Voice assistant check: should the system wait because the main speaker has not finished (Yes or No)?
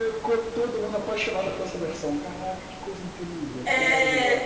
No